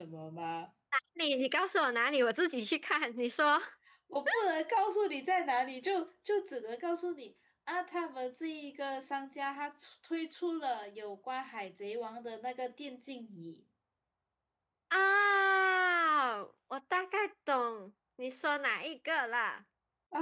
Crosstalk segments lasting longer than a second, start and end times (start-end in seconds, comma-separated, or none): none